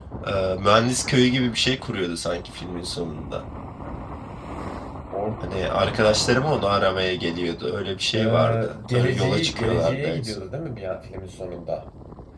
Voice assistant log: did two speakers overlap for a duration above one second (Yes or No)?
Yes